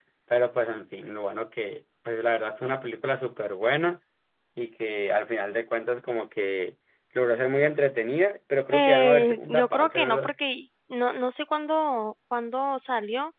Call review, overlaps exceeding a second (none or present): present